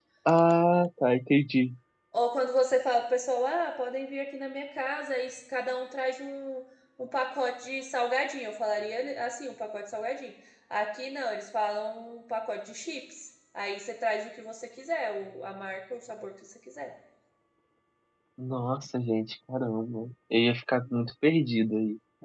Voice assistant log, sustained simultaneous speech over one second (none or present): none